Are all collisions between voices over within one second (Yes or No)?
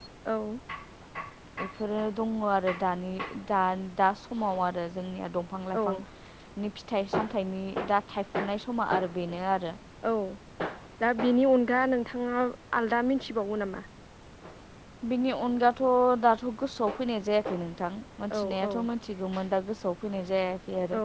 Yes